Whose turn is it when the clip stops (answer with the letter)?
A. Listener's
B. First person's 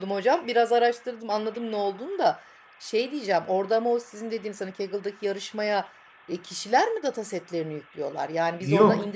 A